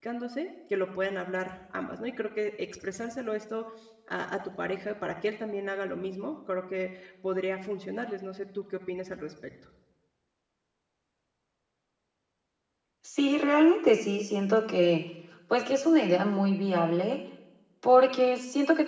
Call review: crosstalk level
none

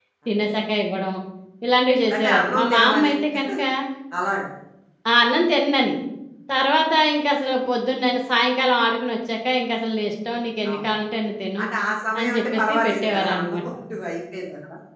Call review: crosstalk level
present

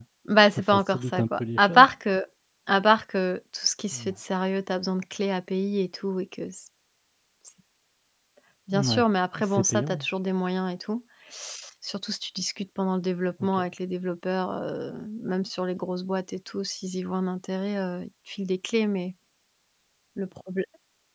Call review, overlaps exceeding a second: present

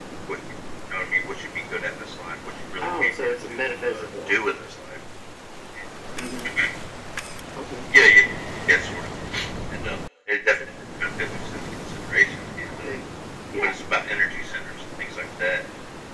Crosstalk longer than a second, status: present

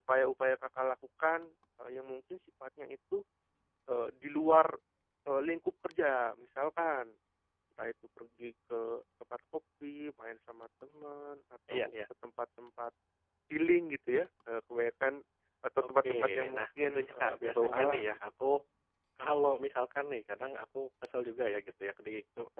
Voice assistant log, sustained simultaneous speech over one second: present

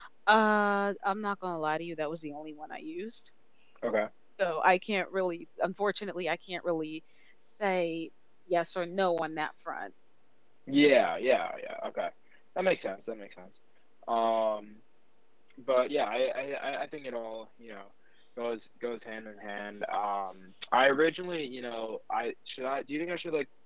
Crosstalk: none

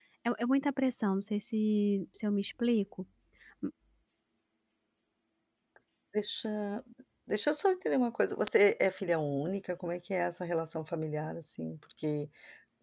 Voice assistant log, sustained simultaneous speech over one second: none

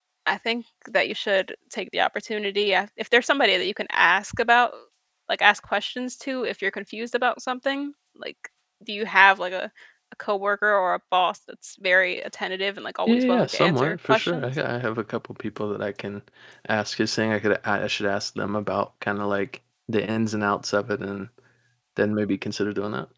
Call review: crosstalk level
present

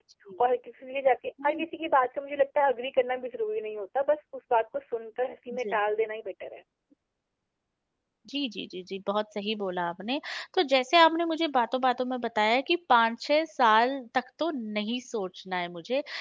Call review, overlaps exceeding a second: none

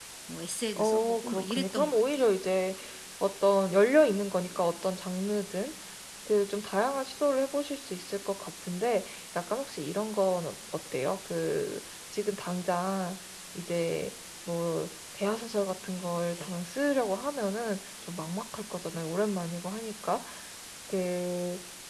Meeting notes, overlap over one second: present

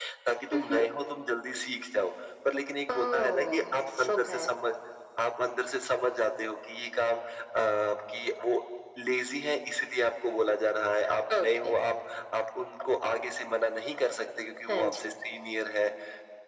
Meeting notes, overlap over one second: present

